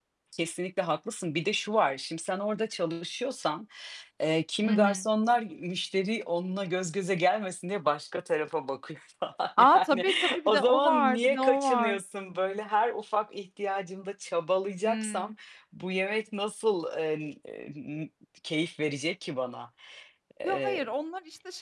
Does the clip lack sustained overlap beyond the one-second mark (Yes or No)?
No